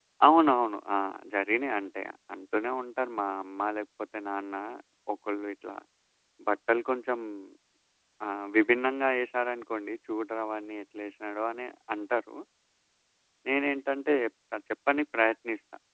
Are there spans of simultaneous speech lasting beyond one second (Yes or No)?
No